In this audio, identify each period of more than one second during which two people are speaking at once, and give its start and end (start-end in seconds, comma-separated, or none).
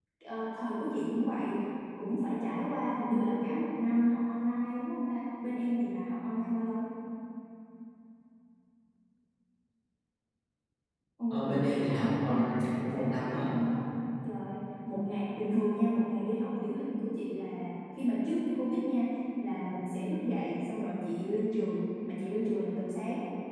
11.3-13.5